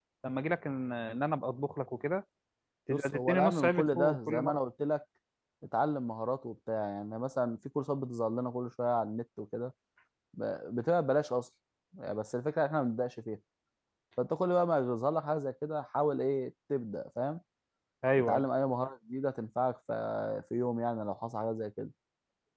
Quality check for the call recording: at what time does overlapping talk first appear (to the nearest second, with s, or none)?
3 s